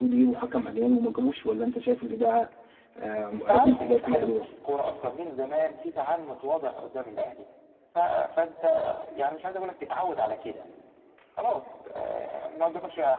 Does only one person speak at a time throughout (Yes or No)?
No